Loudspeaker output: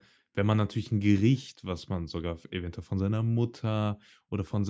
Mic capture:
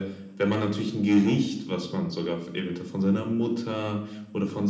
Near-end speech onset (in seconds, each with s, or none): none